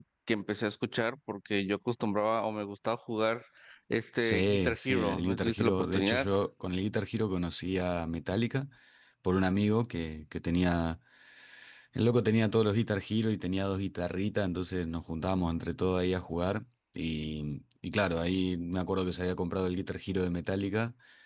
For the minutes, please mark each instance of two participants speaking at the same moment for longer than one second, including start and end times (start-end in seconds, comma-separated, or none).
4.2-6.3